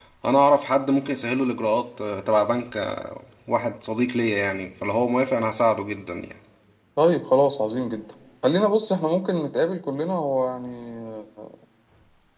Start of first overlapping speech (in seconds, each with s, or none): none